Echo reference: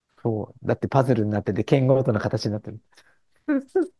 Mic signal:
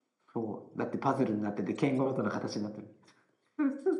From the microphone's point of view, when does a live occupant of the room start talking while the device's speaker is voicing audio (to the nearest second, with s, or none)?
none